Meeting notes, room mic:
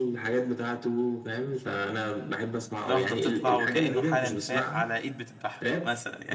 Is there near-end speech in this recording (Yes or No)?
Yes